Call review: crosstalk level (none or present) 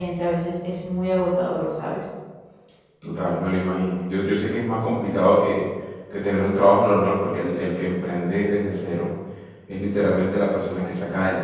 none